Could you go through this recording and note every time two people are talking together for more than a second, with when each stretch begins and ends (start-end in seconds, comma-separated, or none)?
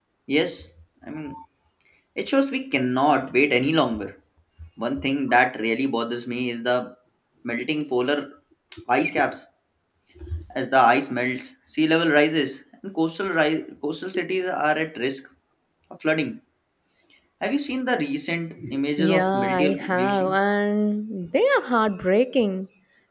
19.0-20.3